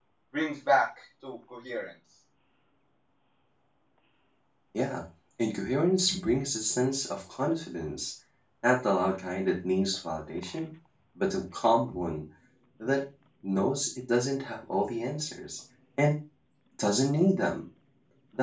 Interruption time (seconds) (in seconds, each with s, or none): none